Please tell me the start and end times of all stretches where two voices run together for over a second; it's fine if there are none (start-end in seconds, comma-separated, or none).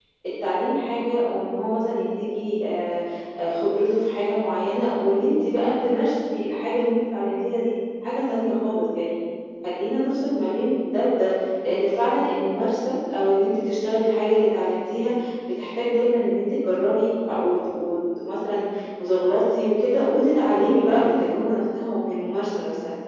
none